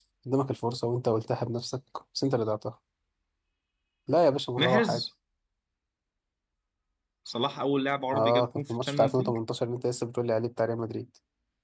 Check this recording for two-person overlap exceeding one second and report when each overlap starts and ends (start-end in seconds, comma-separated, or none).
8.1-9.4